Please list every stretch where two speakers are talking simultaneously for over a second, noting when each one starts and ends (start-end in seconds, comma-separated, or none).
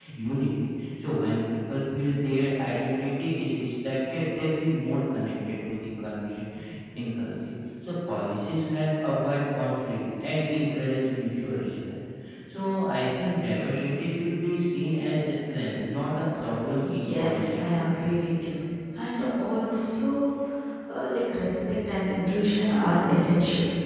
16.8-18.1